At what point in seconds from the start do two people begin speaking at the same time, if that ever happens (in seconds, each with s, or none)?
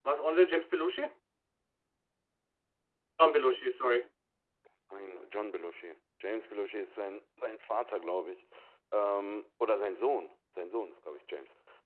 none